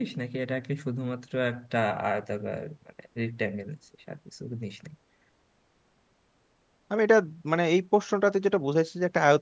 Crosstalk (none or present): none